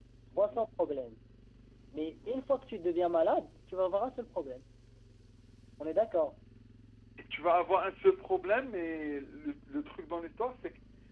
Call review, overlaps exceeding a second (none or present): none